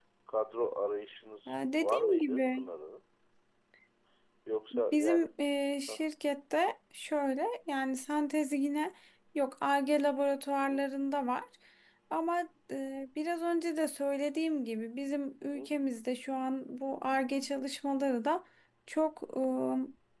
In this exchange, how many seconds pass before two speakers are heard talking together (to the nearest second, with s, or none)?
1 s